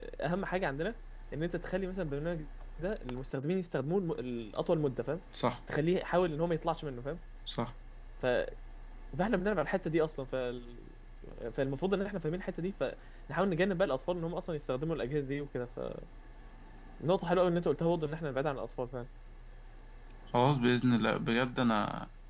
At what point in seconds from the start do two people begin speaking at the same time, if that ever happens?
none

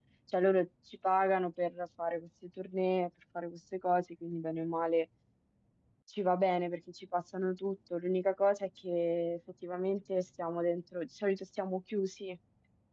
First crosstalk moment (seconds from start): none

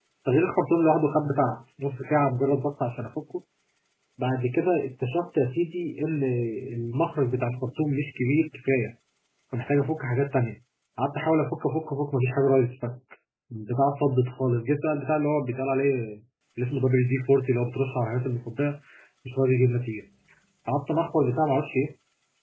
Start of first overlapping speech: none

